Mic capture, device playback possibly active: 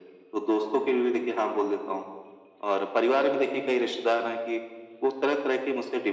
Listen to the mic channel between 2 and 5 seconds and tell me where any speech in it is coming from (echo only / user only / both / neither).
echo only